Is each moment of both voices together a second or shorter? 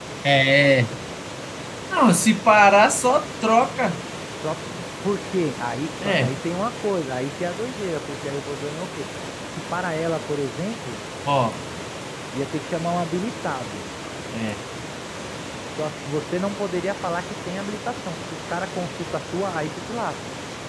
Yes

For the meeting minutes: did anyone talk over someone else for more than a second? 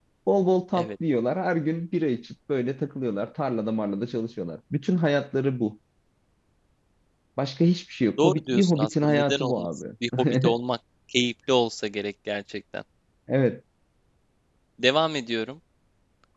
Yes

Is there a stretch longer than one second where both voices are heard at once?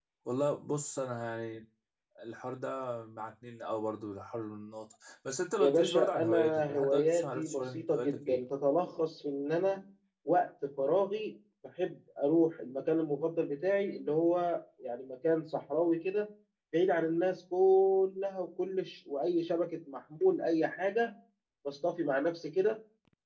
Yes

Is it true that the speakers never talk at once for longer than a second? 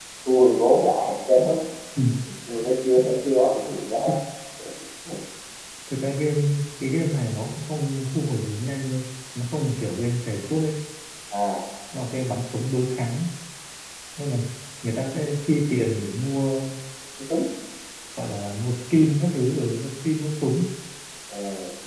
Yes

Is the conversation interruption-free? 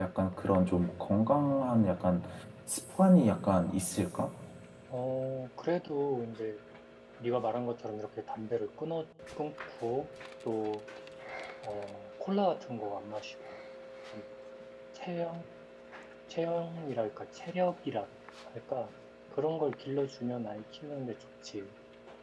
Yes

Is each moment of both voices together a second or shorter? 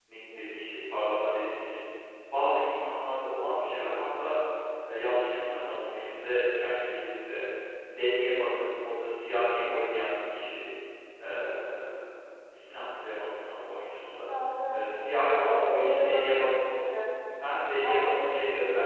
No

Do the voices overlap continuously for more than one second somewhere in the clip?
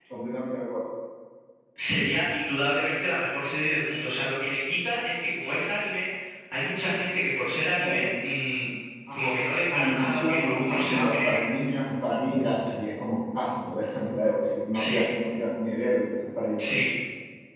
Yes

